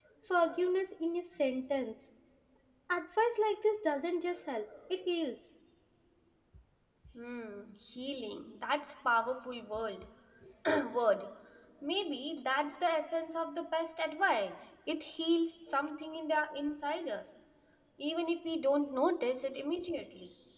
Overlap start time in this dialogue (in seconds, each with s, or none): none